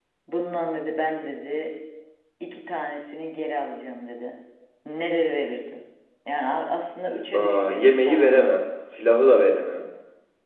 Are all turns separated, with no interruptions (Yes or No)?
No